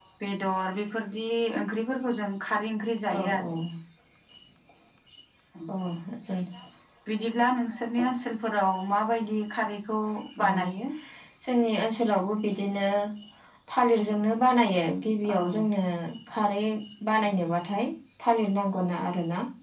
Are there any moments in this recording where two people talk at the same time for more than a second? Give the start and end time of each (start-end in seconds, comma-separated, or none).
none